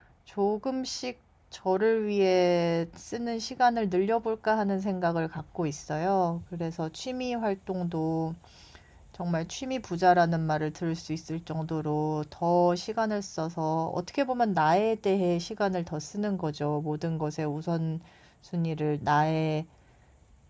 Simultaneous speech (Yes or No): No